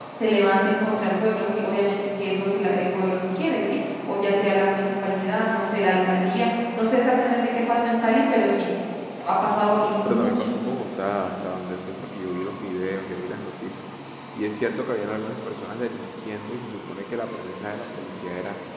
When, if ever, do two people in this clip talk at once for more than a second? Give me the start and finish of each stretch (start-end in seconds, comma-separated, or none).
none